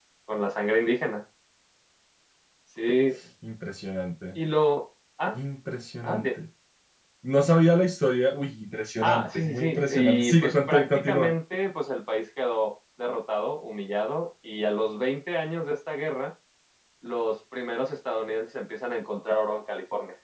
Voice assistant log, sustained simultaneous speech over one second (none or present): present